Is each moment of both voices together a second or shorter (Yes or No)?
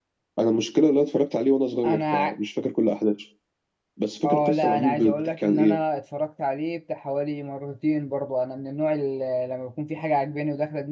No